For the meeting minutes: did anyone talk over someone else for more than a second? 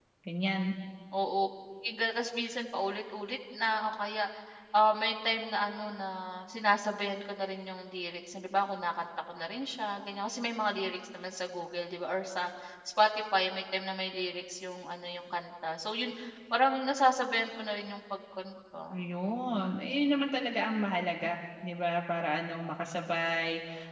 No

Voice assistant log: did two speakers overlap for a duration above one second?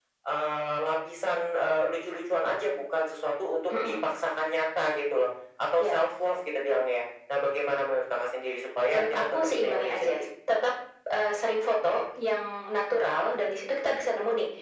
Yes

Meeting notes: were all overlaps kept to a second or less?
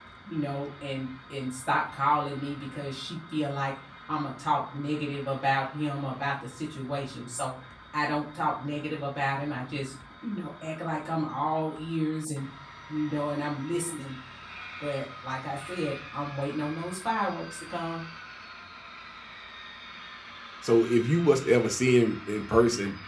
Yes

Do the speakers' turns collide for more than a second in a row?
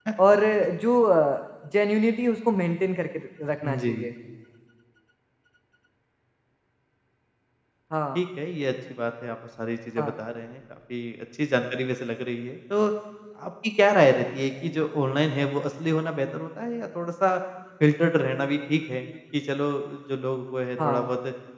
No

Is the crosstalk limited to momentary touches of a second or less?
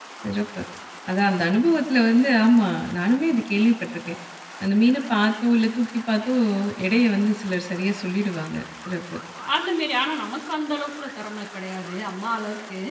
Yes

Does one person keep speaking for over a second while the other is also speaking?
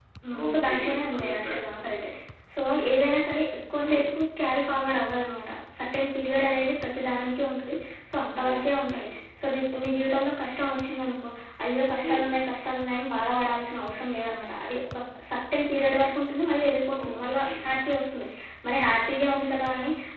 Yes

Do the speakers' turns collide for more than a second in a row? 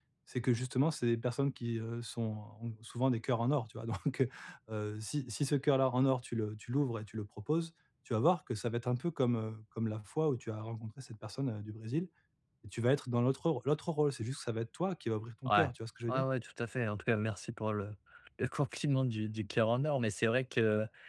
No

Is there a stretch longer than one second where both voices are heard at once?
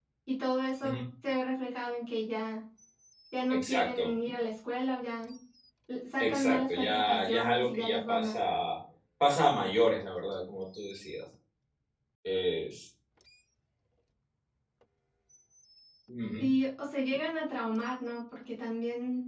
Yes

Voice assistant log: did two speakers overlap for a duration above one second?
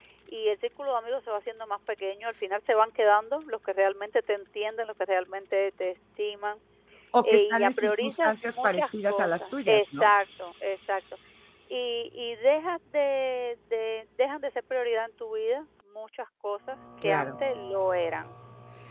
Yes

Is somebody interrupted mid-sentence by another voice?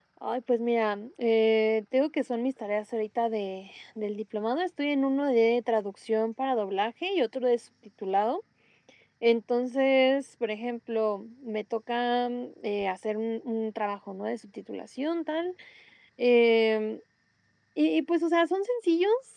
No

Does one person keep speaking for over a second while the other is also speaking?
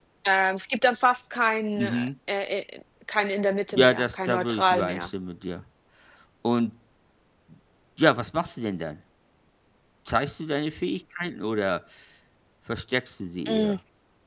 Yes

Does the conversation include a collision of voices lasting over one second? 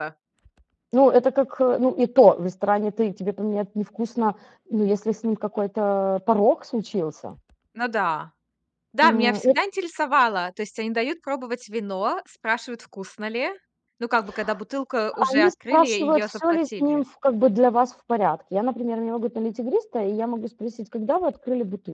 Yes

